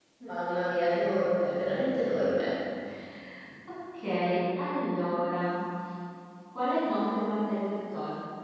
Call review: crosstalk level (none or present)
none